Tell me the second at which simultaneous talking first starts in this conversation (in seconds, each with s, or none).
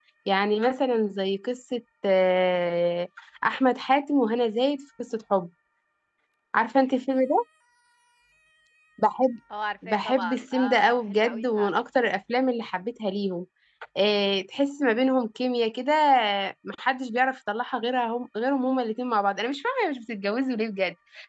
9.9 s